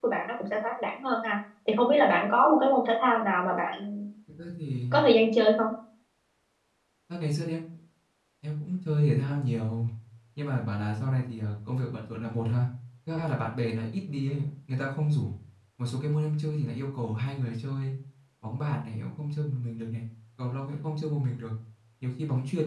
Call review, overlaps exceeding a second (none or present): none